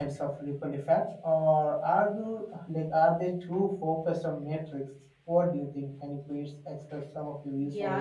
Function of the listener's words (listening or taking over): taking over